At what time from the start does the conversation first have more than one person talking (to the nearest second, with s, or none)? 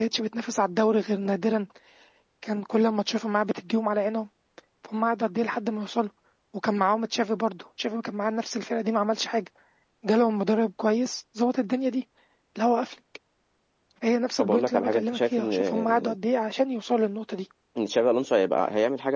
14 s